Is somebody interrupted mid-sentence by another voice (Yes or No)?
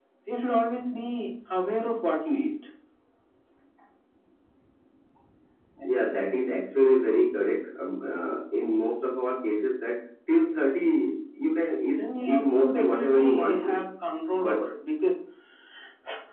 Yes